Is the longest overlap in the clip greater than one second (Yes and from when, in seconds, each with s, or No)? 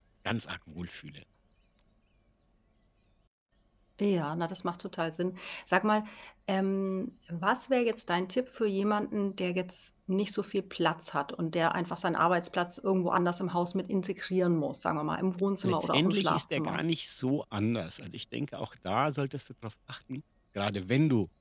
Yes, from 15.6 s